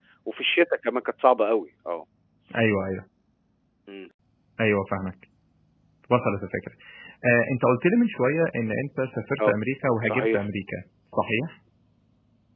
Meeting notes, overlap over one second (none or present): none